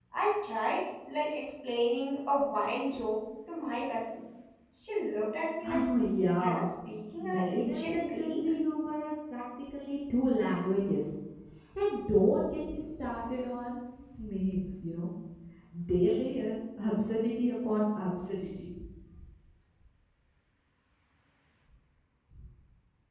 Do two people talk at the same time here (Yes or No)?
Yes